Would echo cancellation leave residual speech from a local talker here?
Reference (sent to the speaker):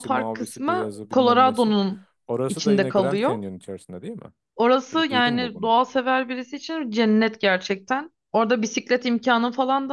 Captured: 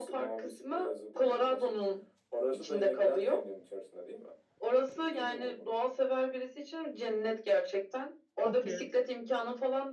Yes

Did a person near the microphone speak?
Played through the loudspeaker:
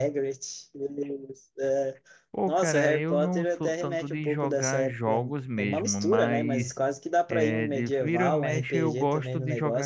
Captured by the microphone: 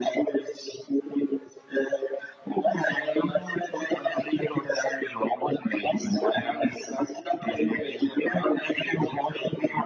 No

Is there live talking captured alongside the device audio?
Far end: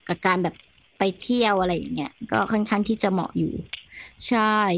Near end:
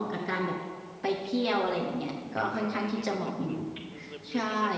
Yes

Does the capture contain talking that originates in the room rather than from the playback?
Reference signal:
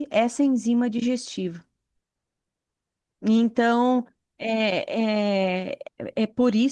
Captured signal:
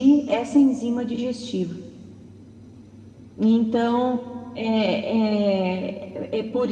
No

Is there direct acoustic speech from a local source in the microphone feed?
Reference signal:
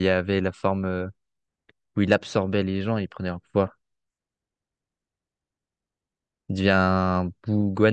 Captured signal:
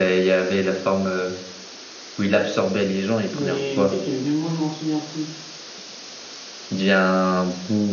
Yes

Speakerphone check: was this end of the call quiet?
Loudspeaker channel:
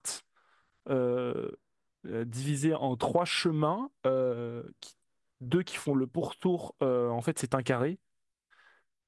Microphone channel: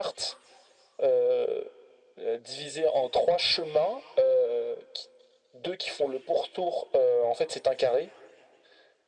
Yes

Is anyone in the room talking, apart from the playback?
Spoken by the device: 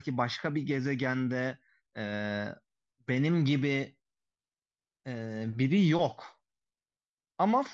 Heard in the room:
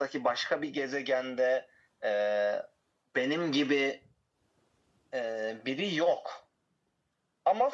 No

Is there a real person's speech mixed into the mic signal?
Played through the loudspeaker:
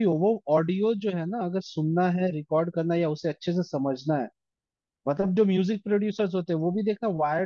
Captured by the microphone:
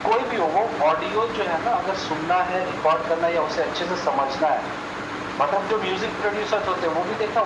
No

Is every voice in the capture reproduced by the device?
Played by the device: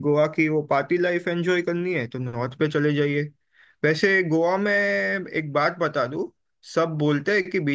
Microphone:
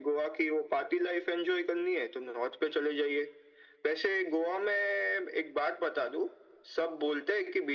Yes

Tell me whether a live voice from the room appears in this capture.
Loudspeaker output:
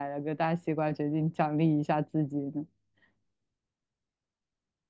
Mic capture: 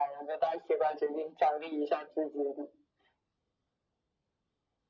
No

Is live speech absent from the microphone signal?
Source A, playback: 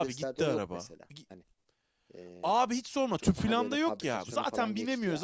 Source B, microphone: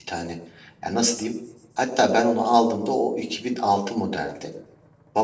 No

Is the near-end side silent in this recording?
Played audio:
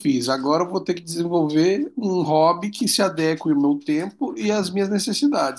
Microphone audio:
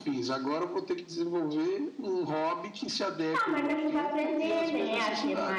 No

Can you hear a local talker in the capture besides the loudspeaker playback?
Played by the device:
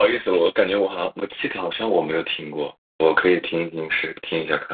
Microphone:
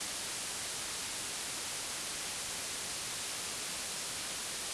No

